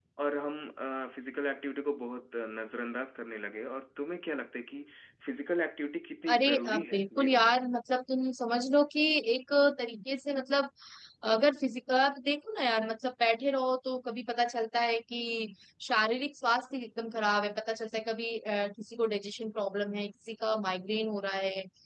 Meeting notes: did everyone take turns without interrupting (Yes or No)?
No